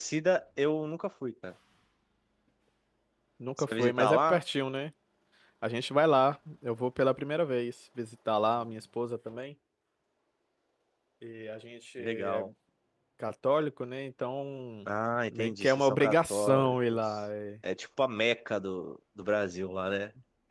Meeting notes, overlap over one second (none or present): present